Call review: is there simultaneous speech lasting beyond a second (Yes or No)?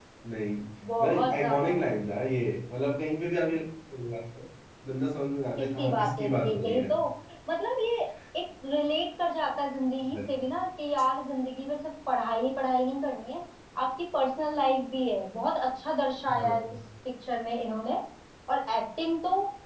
Yes